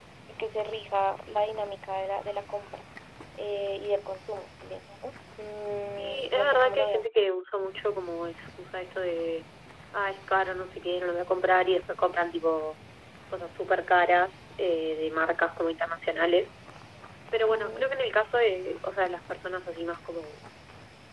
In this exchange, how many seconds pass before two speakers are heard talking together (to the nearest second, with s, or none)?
6 s